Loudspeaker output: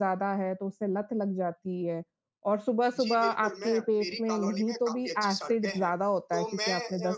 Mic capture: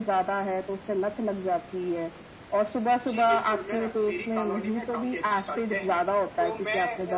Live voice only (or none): none